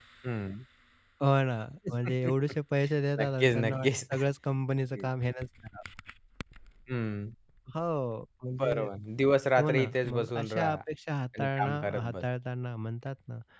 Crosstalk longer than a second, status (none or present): present